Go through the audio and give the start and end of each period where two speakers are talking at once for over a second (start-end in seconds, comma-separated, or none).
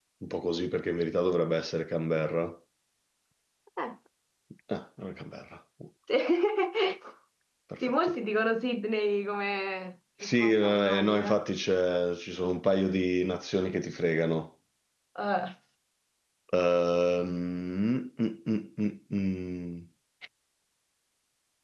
10.2-11.4